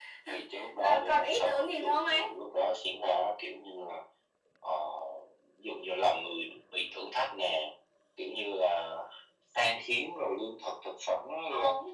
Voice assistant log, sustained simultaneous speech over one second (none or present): present